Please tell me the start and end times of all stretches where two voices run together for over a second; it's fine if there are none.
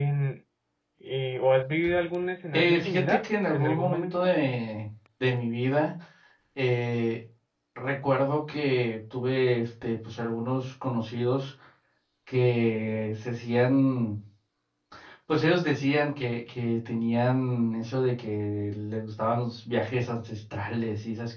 2.5-4.3

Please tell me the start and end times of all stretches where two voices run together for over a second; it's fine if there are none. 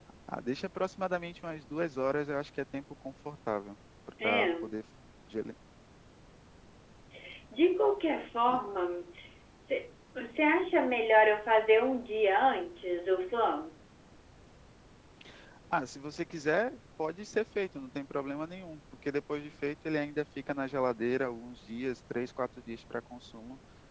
none

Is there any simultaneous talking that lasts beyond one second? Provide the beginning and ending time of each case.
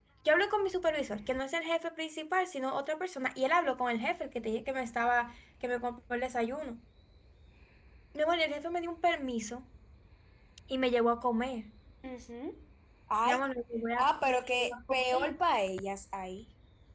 14.0-15.3

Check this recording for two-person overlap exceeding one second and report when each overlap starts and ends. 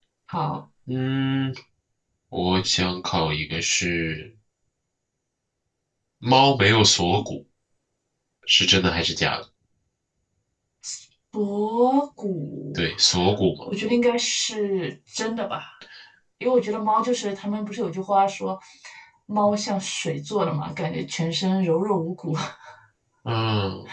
none

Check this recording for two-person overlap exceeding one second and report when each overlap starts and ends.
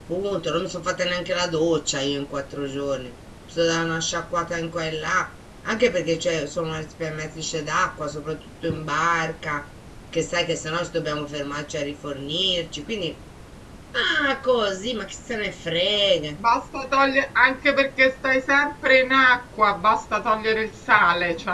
none

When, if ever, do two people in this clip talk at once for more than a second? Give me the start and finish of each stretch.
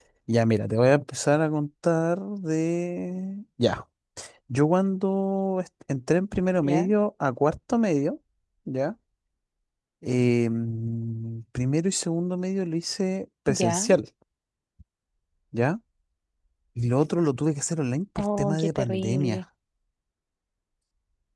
18.2-19.4

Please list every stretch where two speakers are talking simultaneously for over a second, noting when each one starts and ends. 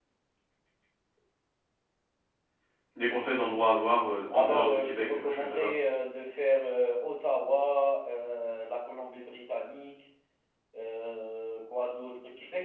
4.3-5.7

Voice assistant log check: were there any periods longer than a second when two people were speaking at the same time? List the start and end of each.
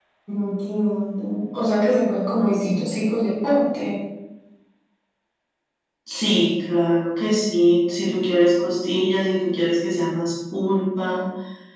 none

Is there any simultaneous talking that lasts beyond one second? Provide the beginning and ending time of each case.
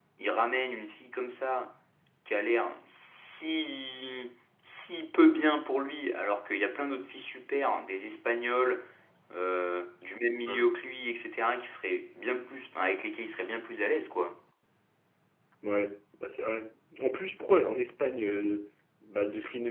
none

